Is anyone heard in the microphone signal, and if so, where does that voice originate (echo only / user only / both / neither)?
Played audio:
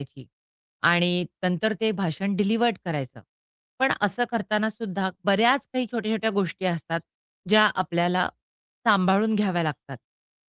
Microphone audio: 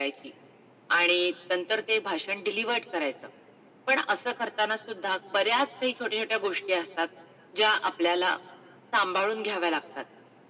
echo only